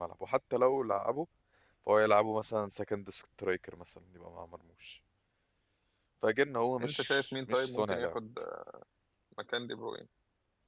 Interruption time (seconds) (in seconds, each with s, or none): 6.8 s